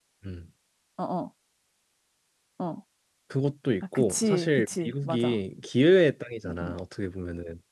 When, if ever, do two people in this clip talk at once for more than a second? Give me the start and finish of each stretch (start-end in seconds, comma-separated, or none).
3.9-5.3